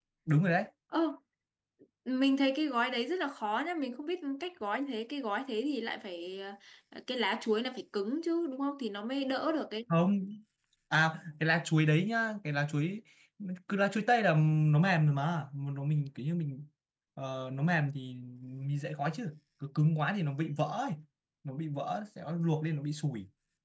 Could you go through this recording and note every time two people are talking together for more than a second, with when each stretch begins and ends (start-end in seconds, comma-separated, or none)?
none